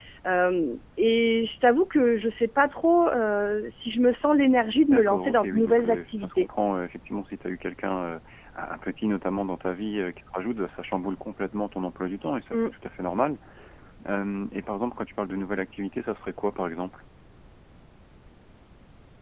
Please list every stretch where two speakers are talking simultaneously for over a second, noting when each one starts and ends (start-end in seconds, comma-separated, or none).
4.8-6.5